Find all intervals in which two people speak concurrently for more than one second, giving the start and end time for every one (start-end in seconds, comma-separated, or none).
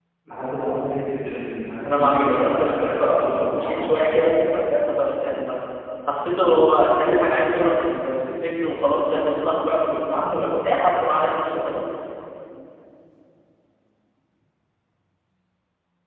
1.9-4.4